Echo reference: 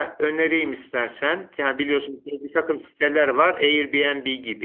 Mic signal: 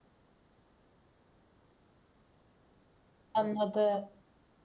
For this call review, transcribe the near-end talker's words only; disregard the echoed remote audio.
anladım.

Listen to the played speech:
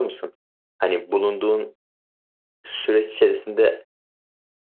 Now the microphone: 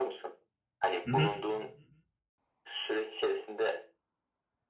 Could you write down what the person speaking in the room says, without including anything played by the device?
Hı hı.

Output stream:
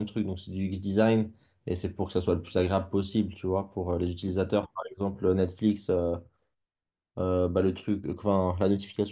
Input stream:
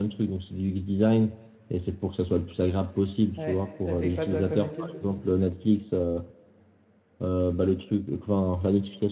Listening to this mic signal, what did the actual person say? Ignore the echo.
Ouais. T'as fait quoi, toi, comme étude?

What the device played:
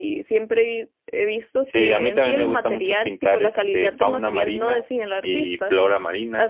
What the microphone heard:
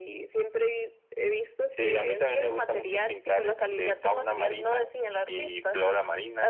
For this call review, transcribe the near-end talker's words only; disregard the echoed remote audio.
none

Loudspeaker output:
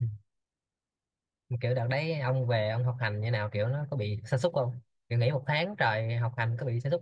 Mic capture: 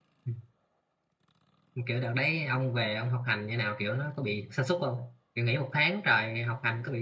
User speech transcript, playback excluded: none

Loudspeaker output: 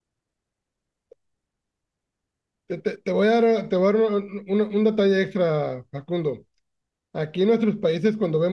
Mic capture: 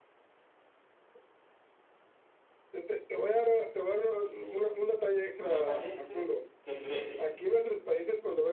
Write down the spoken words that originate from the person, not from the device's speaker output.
Eh, me parece que es Grecia.

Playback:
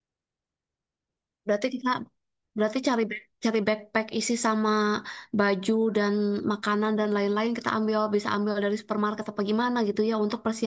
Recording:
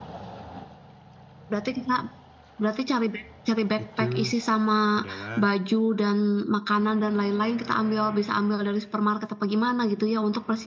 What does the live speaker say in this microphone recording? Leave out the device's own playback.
itu adalah

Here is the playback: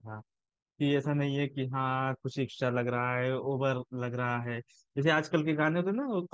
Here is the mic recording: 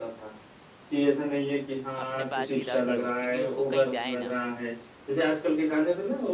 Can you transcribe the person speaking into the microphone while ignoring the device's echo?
अपने पास ही रख लो क्योंकि उसको कहीं जाए ना

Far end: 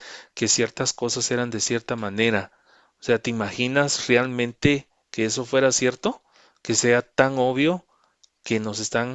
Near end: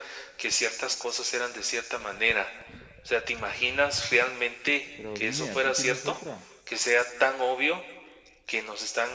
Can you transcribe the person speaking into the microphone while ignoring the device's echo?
Pero dime, ¿tú tienes otra?

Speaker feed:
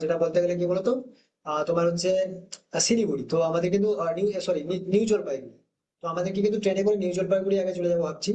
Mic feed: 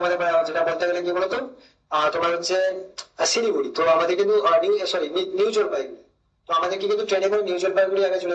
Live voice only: none

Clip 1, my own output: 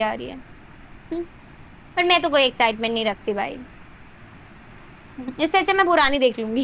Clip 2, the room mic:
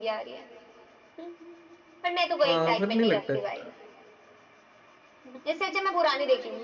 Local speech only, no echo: हाँ फिर नहीं लगता है यार।

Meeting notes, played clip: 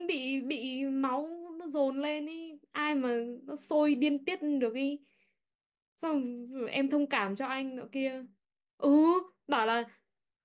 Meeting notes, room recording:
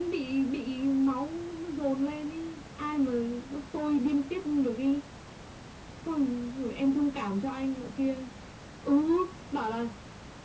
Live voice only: none

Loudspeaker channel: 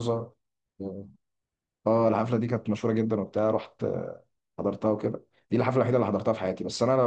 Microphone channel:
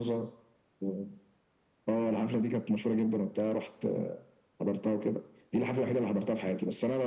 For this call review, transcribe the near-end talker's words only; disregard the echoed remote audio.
none

